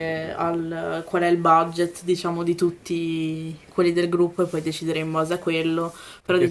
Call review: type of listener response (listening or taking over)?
taking over